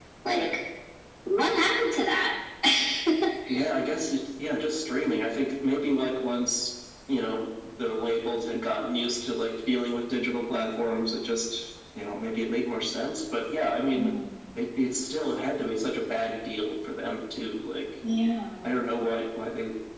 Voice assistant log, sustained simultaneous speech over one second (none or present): none